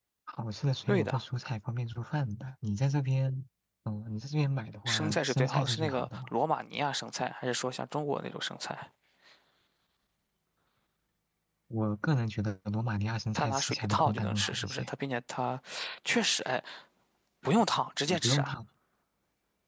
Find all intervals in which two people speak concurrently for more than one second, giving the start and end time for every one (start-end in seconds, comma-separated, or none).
4.9-6.3, 13.4-14.9